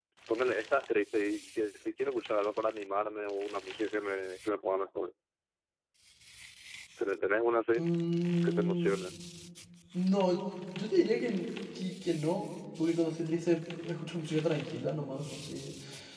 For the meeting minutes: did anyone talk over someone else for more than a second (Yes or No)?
No